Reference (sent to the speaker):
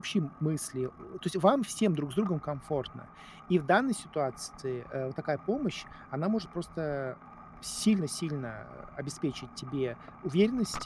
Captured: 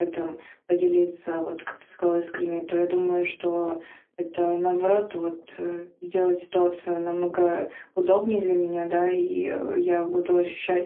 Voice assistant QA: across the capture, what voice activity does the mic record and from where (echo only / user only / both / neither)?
user only